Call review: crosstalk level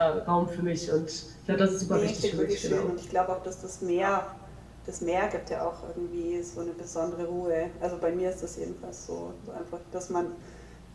present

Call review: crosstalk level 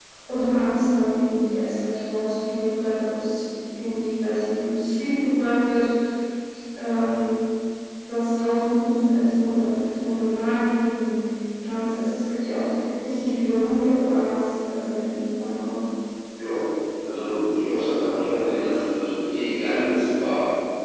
none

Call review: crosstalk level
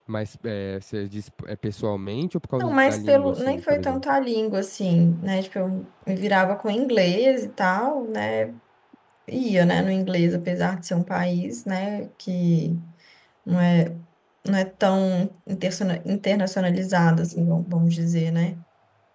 present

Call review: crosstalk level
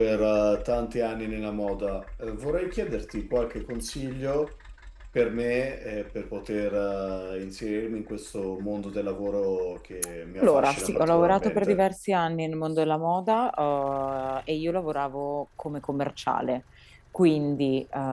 present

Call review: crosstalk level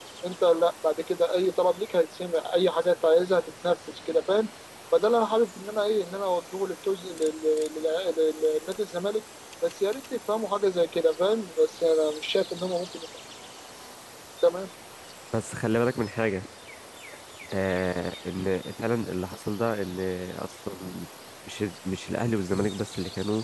none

